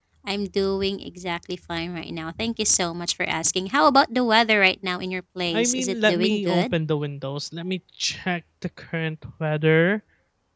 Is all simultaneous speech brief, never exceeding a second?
No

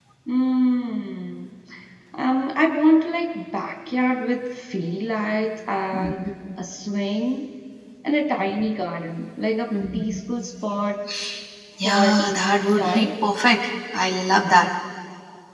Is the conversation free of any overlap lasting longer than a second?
No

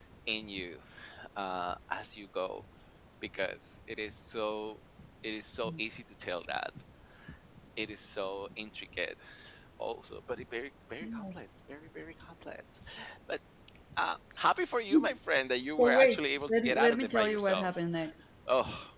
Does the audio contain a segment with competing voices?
Yes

